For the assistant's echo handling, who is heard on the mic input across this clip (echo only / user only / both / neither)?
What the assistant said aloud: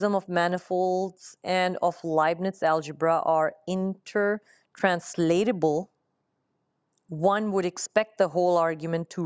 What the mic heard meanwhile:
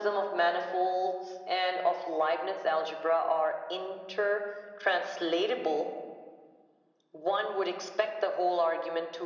echo only